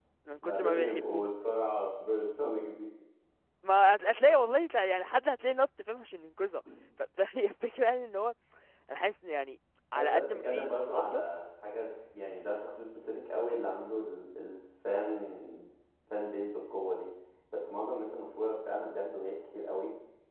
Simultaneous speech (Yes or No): Yes